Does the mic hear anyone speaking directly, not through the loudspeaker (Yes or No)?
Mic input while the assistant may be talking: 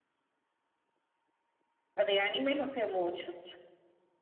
Yes